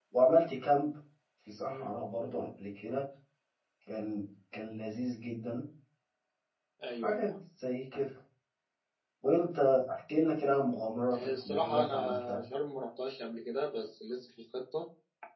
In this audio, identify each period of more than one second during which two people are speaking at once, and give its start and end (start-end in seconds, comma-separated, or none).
11.1-12.4